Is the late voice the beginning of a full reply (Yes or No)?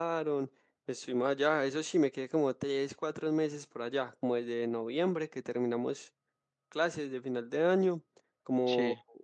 No